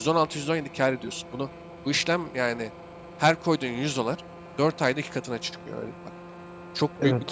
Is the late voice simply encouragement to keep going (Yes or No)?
No